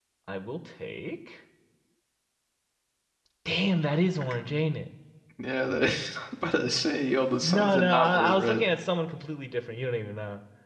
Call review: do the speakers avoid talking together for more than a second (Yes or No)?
No